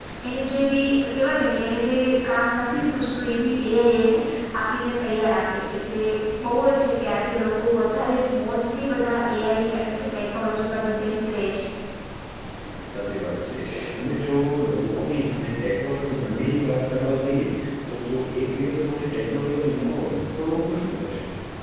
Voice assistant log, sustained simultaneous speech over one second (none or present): none